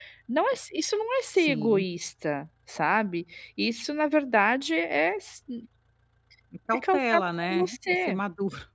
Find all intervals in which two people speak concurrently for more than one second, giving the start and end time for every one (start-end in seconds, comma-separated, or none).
6.7-8.2